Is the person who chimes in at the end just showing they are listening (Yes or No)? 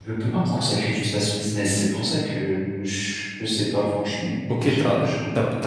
No